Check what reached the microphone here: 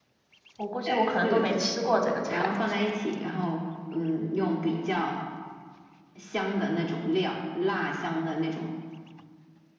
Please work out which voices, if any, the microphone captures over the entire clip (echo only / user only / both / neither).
both